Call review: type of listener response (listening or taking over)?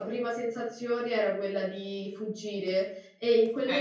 taking over